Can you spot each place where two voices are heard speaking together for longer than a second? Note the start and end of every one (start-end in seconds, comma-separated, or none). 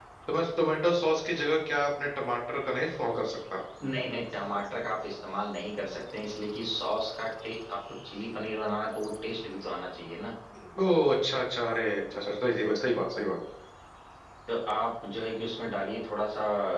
none